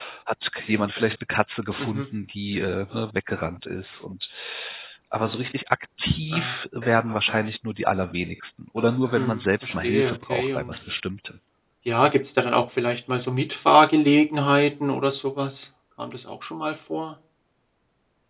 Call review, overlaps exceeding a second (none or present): present